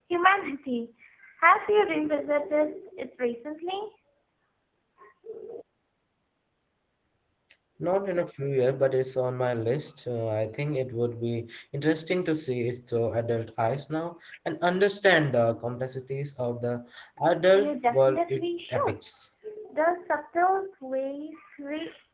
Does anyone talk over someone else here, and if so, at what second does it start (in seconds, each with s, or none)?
17.6 s